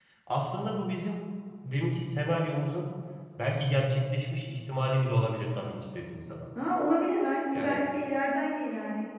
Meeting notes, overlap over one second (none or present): none